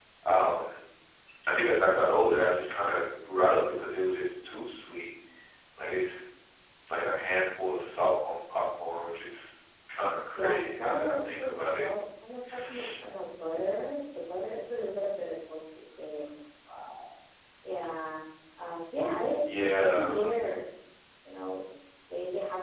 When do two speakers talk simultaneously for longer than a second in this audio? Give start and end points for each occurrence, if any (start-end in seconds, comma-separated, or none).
10.3-11.9